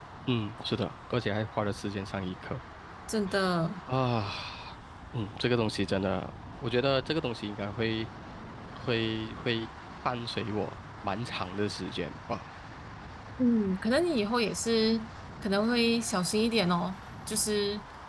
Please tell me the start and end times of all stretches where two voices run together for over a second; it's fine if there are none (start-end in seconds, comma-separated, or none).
none